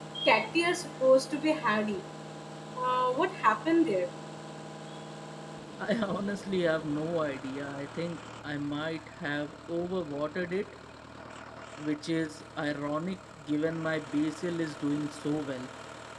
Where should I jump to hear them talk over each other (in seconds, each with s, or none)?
none